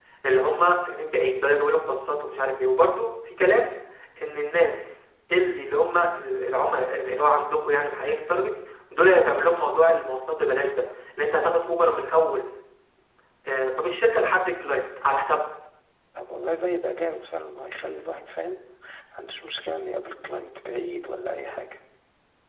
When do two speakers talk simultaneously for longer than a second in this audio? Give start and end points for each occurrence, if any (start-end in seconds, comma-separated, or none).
none